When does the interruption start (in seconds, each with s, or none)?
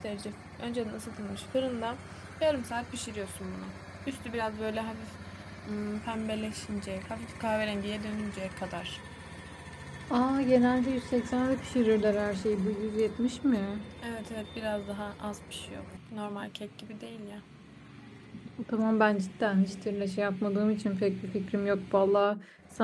none